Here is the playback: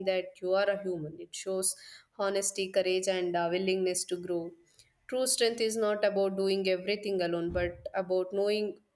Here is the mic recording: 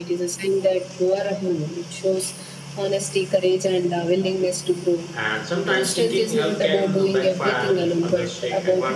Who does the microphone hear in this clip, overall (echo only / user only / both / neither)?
both